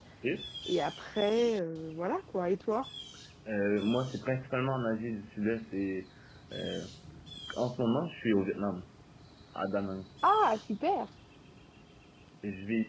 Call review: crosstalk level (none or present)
none